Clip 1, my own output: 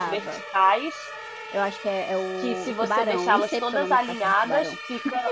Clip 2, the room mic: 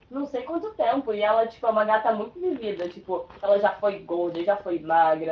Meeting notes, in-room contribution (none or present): present